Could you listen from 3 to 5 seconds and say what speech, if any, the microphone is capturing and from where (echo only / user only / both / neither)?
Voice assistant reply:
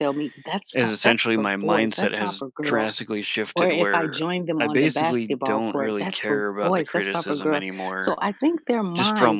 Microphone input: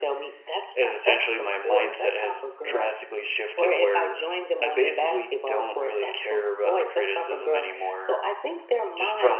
echo only